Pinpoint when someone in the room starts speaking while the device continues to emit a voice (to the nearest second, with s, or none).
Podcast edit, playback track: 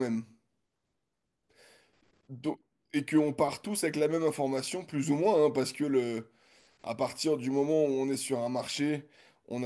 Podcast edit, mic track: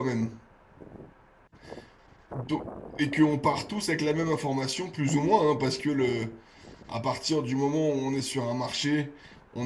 none